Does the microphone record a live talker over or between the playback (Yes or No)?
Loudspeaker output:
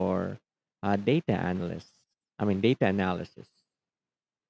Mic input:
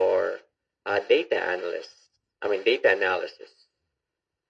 No